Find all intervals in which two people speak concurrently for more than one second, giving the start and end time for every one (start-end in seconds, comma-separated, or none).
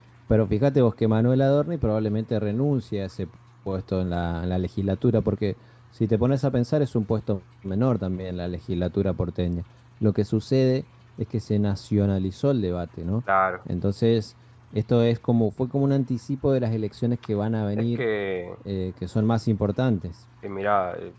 none